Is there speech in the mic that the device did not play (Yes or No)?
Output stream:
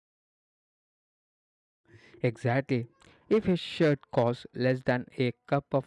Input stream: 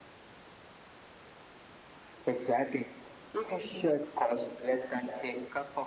No